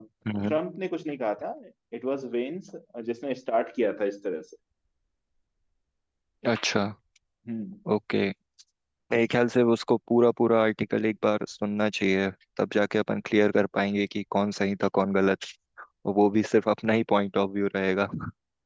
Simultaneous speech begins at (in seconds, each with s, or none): none